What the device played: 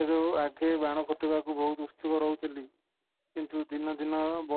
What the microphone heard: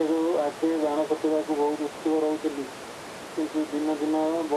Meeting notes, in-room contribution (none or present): none